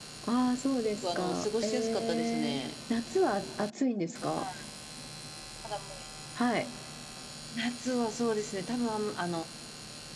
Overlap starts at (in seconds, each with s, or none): 0.8 s